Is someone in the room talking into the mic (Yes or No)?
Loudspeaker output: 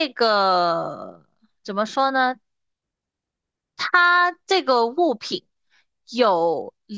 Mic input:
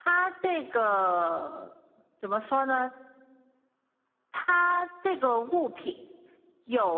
No